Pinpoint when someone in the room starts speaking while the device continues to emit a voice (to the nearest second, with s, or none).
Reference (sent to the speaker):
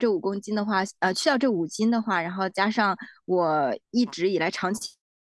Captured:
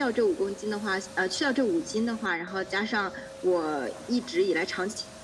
none